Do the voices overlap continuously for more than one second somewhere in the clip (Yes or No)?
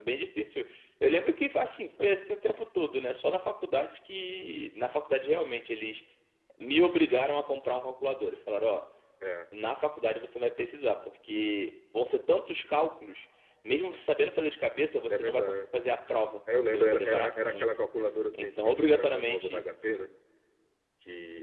Yes